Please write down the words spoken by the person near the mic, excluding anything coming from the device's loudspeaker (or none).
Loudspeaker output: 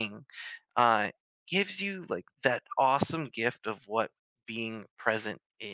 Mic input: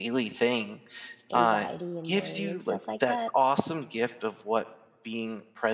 anxiety and worry and stuff like that.